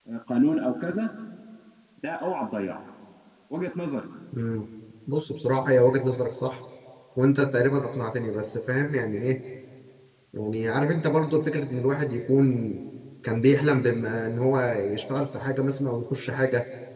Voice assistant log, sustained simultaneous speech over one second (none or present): none